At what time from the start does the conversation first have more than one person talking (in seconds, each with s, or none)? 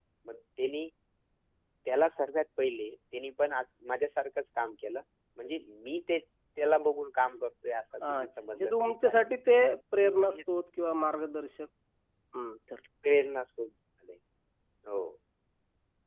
8.0 s